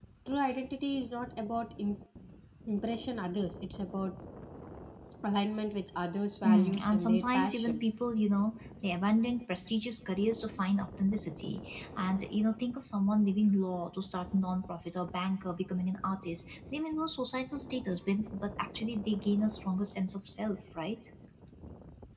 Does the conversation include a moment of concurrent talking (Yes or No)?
Yes